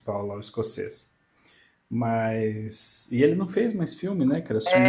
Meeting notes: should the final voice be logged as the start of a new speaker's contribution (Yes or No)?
Yes